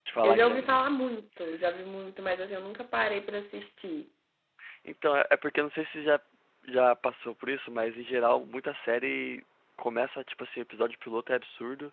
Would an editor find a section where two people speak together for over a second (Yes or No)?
No